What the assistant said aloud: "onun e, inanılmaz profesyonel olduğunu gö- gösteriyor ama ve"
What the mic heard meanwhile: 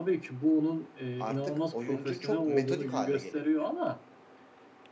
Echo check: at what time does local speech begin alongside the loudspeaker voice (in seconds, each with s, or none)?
1.2 s